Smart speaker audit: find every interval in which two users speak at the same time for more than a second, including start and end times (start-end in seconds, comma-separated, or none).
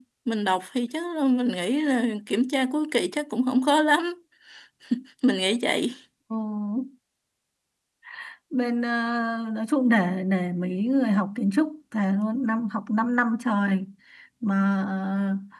none